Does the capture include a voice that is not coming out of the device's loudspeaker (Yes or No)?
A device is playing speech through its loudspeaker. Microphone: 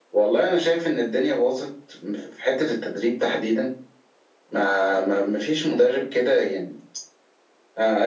No